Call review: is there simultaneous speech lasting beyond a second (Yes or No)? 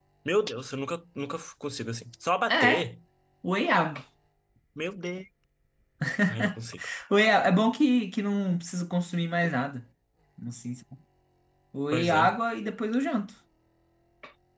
No